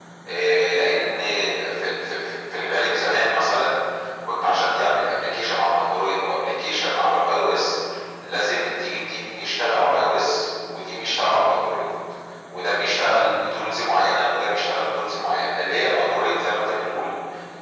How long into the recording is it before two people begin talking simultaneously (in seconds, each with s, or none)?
none